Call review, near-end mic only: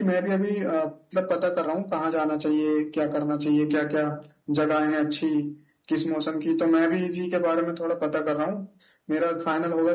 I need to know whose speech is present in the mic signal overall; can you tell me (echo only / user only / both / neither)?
echo only